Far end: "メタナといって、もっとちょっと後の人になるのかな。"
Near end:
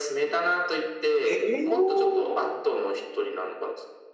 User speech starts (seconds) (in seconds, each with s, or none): 1.2 s